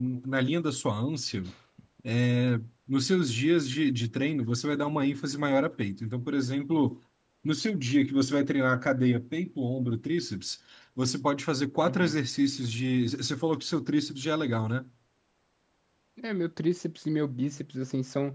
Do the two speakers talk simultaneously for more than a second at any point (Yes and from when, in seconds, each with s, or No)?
No